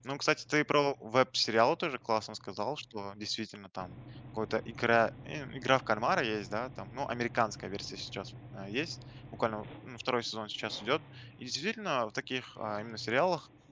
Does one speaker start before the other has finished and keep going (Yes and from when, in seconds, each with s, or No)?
No